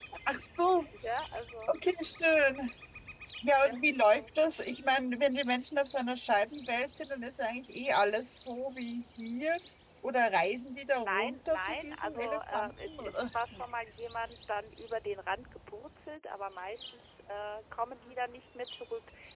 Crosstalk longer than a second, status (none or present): present